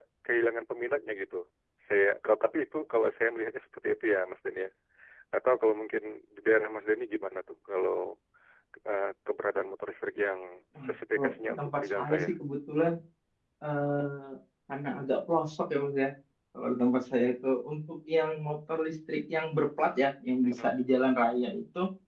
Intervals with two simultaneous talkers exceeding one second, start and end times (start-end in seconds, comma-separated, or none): 10.9-12.3